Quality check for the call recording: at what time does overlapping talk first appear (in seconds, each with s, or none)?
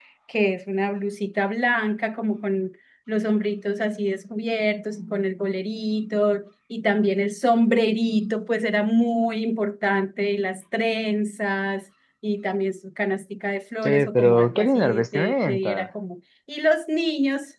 13.8 s